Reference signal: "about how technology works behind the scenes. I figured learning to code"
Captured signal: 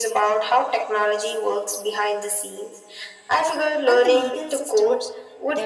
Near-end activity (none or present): present